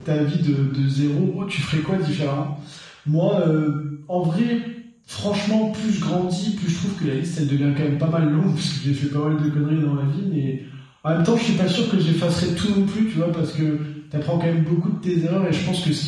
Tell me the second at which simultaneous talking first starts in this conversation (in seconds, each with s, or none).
none